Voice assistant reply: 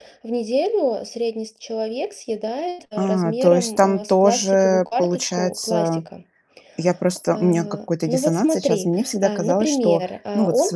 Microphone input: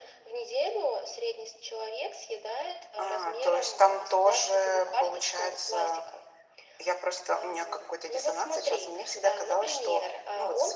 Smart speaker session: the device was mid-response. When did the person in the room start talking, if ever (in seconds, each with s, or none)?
none